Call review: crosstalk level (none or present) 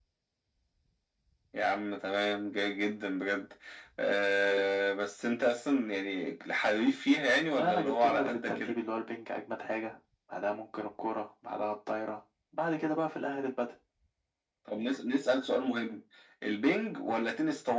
present